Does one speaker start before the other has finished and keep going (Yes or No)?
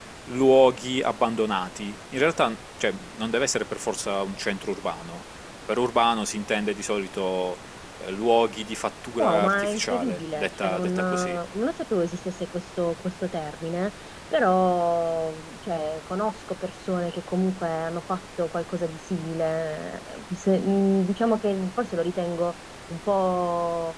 Yes